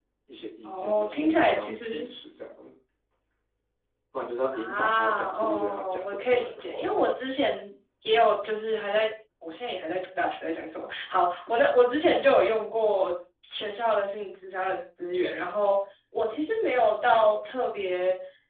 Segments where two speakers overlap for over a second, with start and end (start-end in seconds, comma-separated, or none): 0.6-1.9, 4.5-7.1